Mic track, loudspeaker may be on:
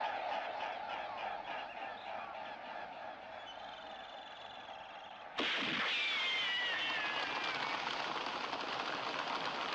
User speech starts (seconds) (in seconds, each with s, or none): none